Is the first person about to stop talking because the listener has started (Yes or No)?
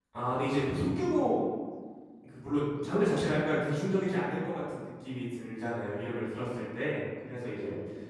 No